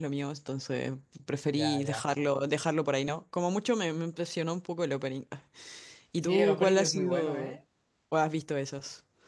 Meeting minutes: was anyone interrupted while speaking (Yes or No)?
Yes